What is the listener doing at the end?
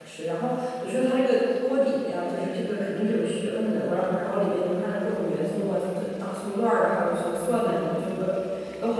listening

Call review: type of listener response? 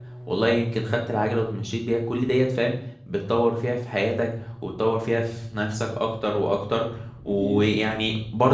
listening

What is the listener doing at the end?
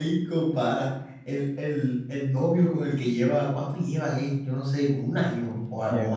taking over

